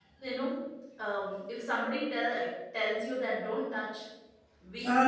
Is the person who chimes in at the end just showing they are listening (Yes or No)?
Yes